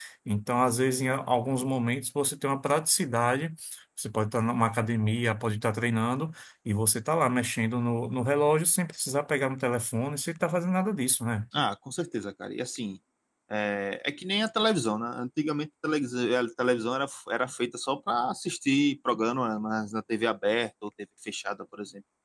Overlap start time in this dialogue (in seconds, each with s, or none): none